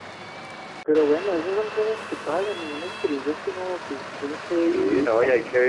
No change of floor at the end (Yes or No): No